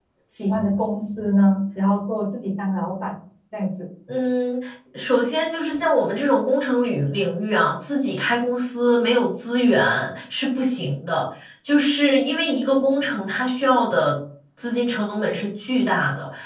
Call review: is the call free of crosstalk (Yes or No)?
Yes